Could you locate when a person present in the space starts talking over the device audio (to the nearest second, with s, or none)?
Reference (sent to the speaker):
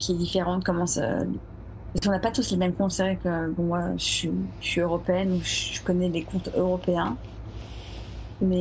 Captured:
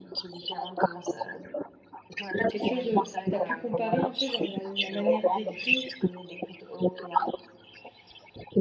2 s